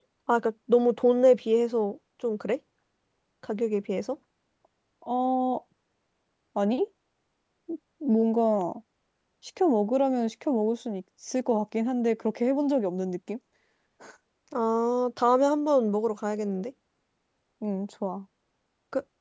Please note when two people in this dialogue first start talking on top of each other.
none

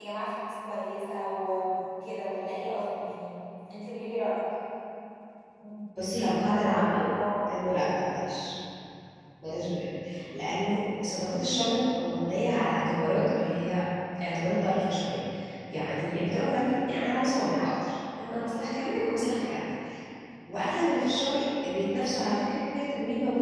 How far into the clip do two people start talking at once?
none

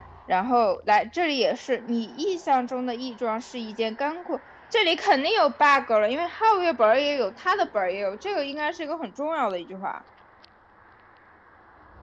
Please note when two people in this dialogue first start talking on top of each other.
none

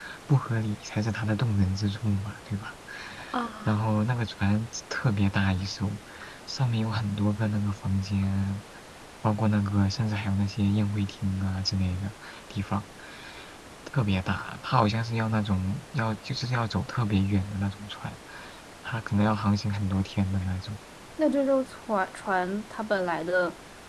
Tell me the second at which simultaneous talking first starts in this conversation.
none

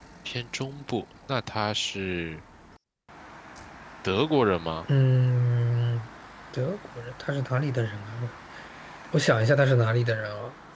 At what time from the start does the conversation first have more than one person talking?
none

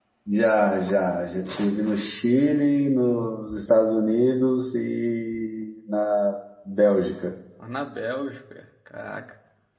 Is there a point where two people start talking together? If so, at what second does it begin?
none

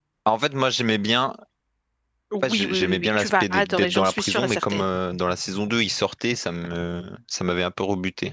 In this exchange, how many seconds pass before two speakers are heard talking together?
2.4 s

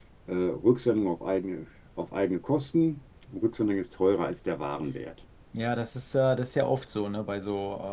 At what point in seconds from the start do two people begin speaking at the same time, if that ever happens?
none

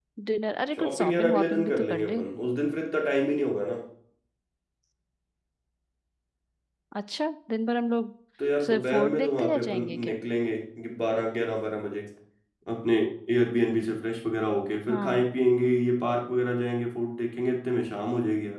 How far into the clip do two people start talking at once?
0.8 s

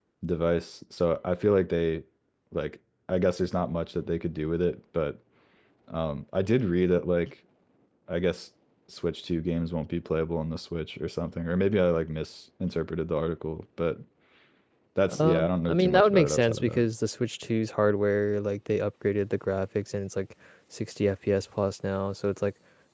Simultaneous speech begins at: 15.1 s

